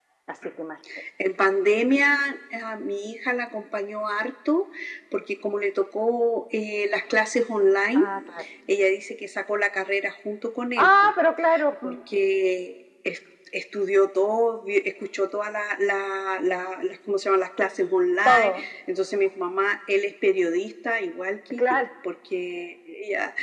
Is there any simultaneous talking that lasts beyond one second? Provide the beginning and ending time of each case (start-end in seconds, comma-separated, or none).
none